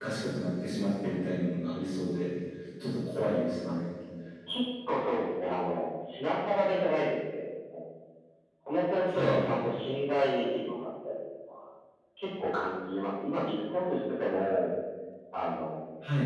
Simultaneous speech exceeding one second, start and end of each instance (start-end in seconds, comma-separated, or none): none